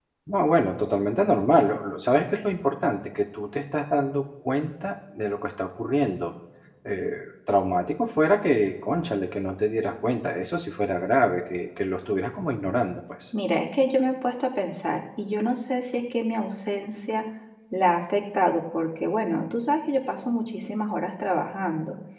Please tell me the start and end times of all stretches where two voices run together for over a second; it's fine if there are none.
none

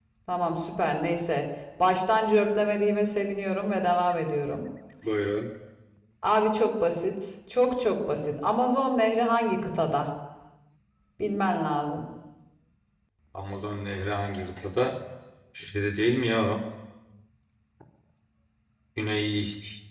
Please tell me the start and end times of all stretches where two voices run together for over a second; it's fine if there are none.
none

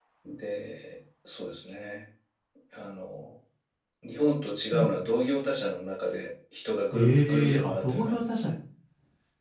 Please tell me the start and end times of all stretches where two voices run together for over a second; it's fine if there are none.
6.9-8.5

